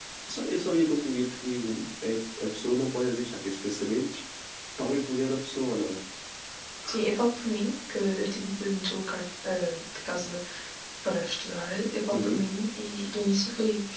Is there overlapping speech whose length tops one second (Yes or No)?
No